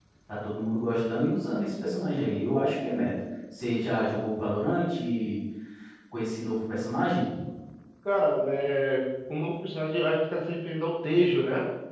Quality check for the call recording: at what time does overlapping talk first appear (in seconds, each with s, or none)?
none